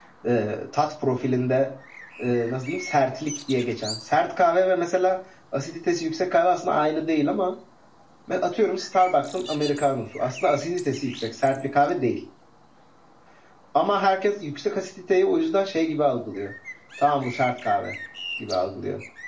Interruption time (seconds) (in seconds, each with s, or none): none